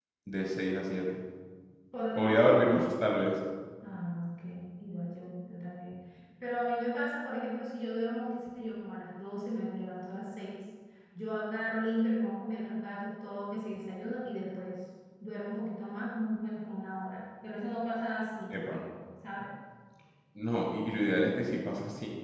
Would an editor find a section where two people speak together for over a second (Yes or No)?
No